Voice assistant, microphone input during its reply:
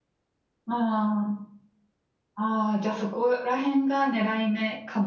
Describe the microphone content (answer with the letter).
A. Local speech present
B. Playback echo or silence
A